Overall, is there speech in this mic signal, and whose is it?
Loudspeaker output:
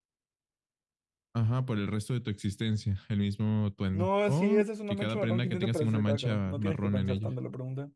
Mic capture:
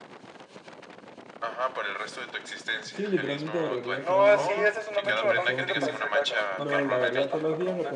both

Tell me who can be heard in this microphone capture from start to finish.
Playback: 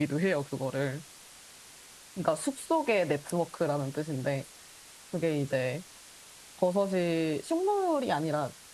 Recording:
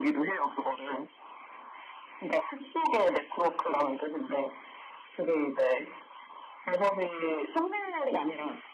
echo only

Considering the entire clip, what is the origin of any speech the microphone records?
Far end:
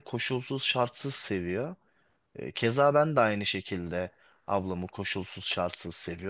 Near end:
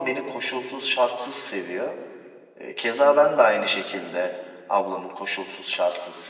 echo only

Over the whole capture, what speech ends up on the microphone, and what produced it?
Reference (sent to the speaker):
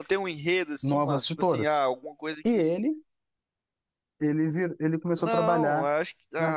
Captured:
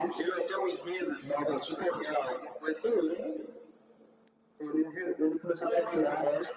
echo only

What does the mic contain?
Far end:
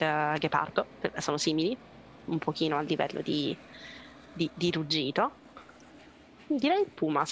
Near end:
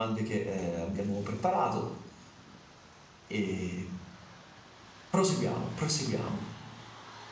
user only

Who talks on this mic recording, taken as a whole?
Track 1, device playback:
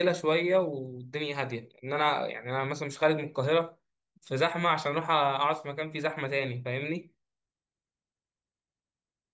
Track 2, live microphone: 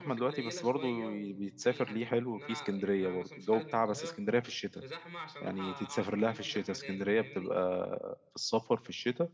both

